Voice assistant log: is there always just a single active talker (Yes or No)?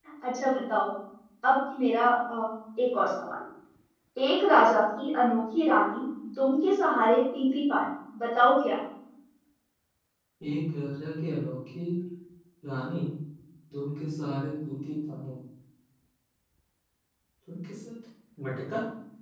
Yes